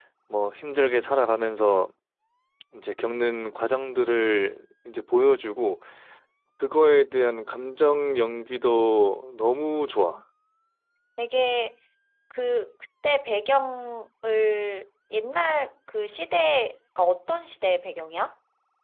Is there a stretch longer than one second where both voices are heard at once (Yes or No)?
No